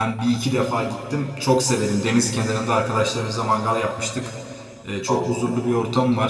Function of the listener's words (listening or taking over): listening